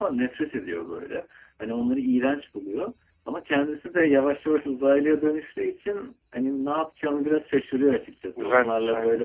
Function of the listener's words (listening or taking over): listening